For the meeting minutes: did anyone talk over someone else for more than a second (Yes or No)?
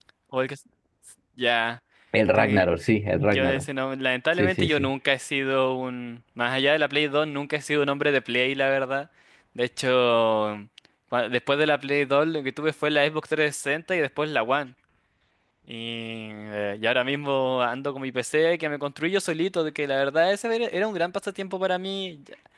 No